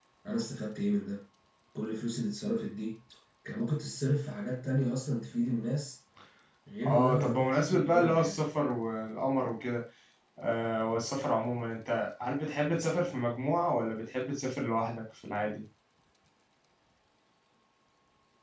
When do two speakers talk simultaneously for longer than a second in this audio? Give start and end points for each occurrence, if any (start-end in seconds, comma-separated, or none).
6.8-8.4